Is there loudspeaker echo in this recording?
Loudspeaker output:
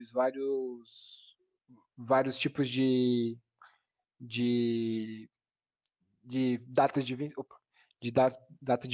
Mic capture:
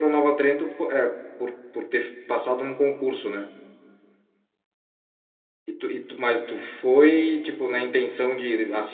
No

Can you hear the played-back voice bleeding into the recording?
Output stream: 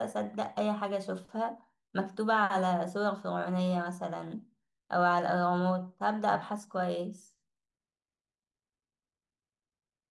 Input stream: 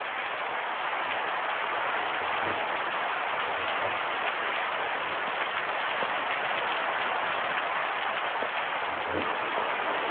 No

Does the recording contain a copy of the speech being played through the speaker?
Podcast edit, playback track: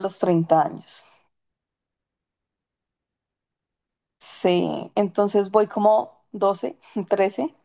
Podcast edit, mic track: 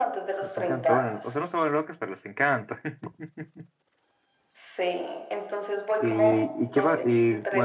Yes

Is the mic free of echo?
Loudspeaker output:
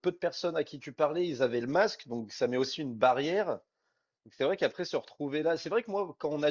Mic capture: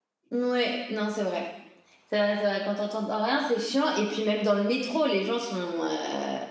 Yes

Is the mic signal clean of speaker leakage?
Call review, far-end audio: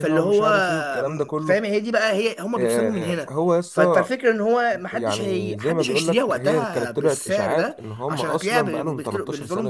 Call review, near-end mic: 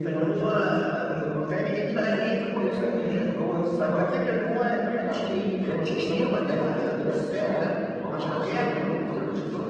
No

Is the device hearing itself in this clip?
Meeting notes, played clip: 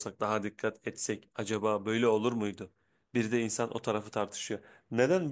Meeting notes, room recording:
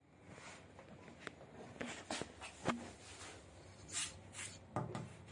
No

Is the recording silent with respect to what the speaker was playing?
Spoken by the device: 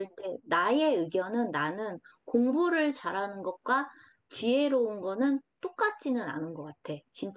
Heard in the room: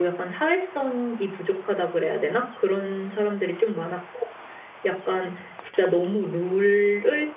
Yes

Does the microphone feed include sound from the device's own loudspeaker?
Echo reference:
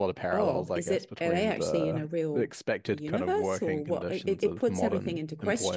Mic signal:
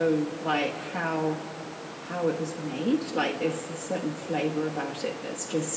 No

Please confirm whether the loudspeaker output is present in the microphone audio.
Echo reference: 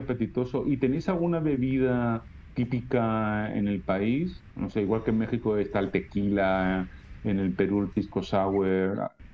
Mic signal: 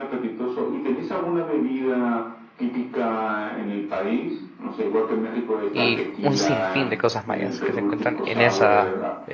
Yes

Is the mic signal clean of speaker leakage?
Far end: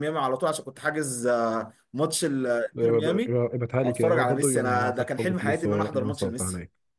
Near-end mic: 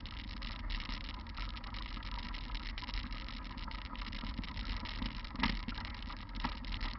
Yes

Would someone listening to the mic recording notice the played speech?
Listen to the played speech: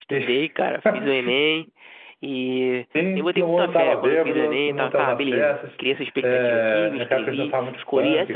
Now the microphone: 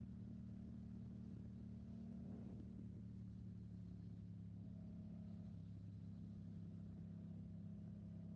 No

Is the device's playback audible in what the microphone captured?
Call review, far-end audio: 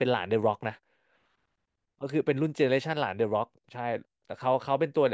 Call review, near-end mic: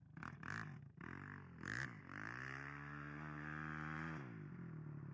No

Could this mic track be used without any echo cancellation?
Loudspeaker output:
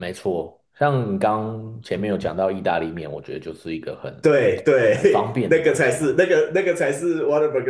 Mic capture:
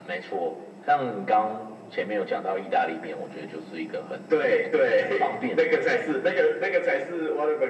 No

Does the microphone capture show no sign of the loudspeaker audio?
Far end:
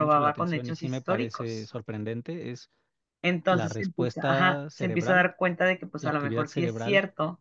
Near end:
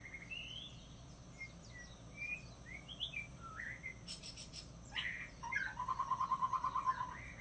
Yes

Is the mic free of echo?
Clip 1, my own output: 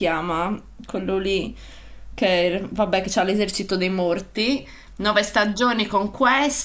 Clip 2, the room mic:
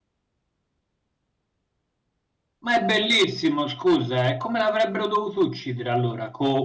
Yes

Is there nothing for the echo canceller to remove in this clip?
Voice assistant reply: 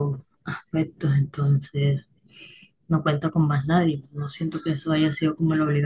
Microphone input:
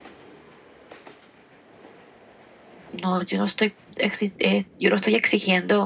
Yes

